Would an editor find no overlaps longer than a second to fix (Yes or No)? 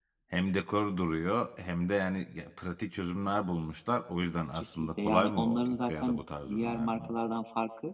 No